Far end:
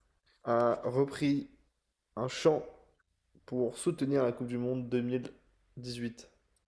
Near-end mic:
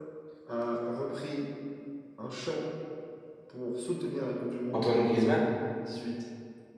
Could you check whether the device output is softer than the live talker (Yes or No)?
Yes